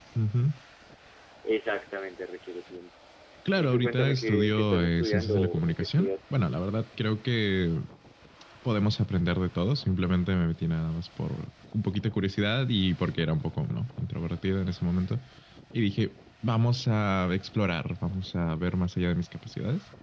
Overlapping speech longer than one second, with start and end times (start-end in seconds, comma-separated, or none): 3.6-6.1